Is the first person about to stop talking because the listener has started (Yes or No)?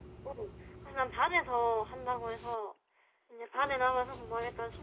No